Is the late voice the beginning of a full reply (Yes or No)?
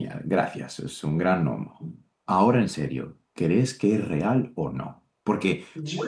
No